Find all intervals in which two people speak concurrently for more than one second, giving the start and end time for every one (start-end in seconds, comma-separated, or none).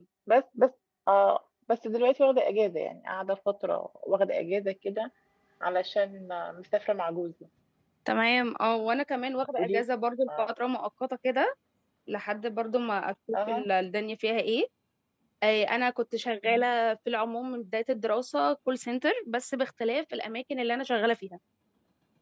none